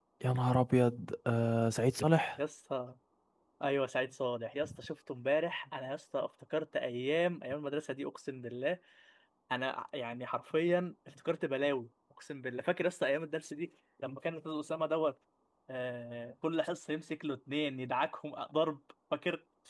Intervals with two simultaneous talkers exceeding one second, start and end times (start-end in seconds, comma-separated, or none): none